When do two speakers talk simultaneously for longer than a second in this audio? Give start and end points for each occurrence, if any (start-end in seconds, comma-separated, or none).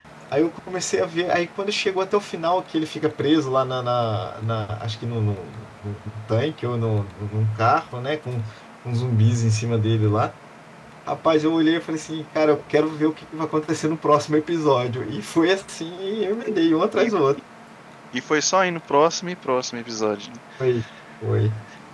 none